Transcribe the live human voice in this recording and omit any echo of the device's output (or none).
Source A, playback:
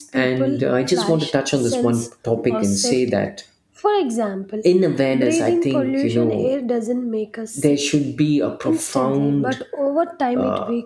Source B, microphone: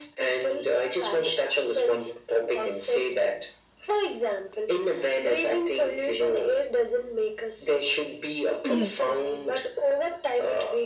Yes.